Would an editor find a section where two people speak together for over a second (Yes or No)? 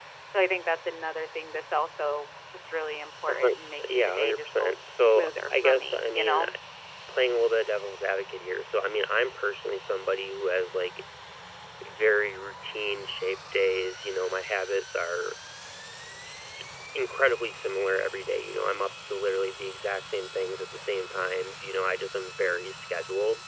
Yes